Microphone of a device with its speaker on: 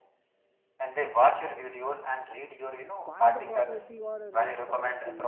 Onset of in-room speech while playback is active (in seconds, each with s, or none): 3.0 s